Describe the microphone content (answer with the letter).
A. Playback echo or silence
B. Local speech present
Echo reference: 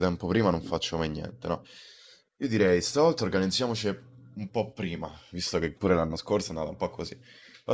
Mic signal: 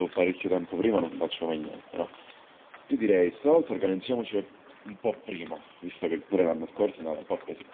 A